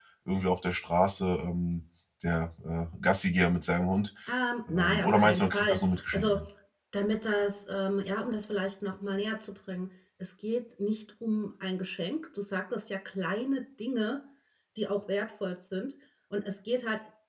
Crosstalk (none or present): present